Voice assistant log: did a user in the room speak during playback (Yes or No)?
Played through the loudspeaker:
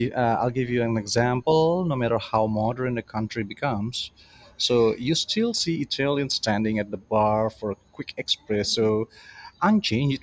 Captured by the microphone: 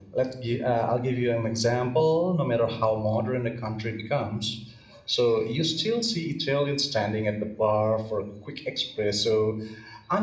No